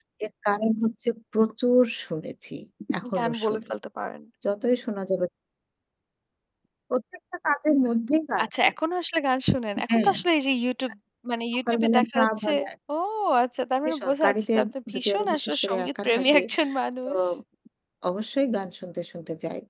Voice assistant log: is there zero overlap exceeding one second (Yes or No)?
No